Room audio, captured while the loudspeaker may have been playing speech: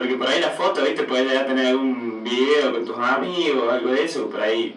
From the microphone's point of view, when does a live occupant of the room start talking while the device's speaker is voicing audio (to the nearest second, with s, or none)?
none